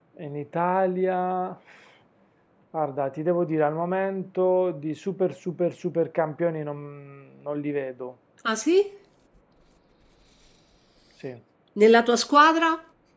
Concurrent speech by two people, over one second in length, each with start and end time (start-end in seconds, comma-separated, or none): none